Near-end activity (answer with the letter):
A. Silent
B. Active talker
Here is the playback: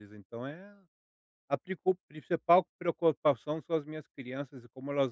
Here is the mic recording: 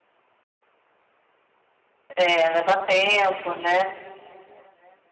B